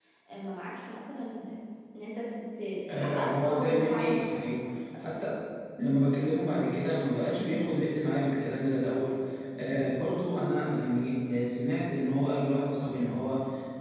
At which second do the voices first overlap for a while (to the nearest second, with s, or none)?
3 s